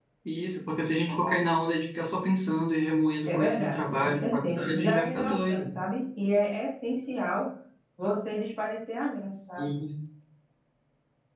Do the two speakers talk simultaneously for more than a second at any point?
Yes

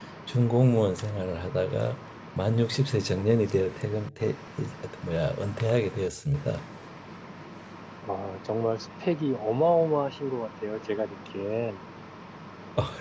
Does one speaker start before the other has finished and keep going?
No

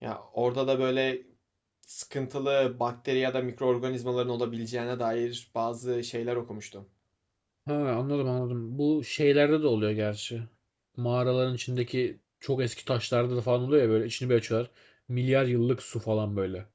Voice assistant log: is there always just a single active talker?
Yes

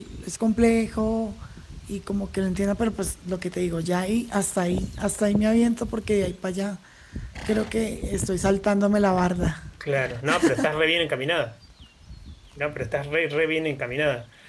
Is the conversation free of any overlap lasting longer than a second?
Yes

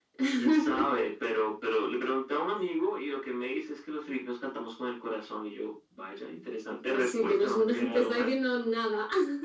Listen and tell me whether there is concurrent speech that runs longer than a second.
Yes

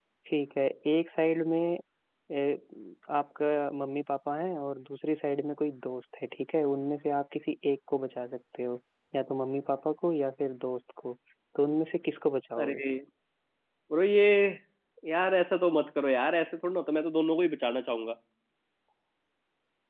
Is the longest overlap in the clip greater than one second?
No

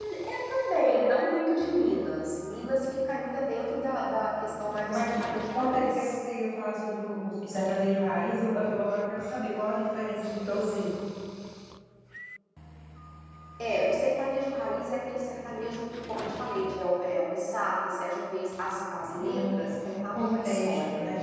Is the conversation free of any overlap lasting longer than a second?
No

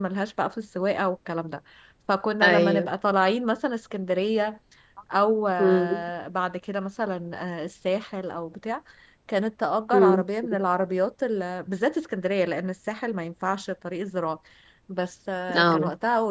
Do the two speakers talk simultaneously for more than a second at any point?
No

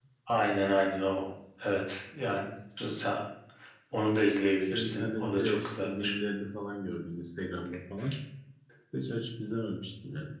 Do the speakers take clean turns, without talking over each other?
No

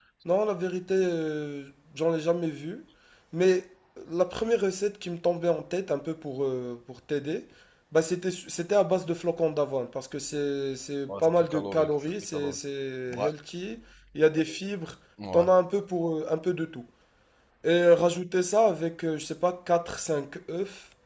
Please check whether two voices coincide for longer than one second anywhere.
Yes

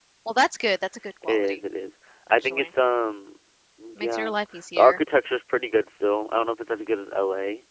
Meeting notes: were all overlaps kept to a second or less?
Yes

